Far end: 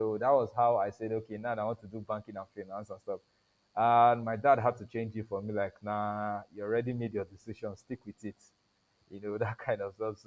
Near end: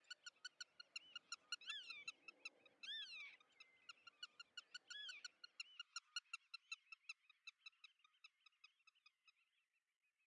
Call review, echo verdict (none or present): none